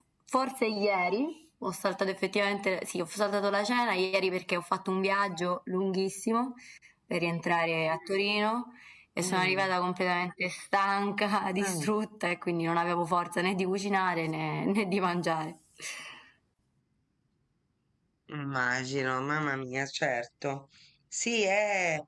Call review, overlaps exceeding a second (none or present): none